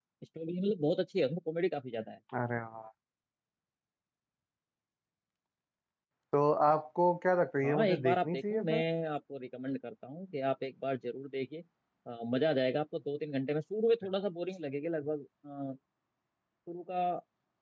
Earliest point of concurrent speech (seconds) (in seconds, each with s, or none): 7.6 s